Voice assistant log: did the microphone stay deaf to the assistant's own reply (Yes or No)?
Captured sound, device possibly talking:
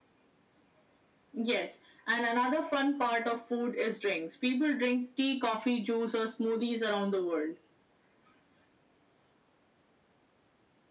No